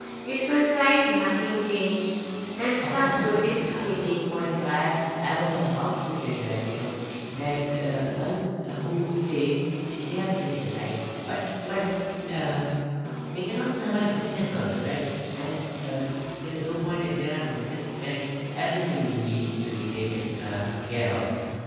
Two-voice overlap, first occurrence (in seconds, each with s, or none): 2.8 s